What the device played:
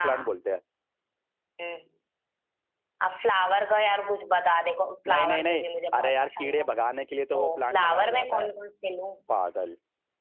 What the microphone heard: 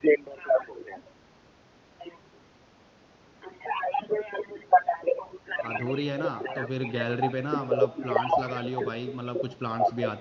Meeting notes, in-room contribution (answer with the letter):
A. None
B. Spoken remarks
B